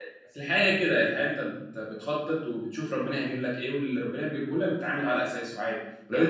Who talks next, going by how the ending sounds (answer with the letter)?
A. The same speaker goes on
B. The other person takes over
A